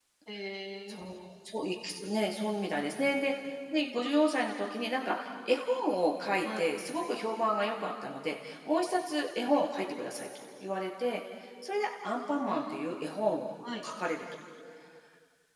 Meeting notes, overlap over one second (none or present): none